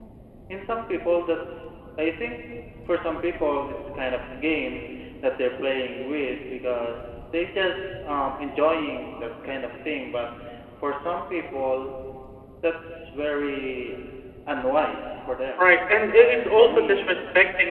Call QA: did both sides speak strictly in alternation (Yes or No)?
No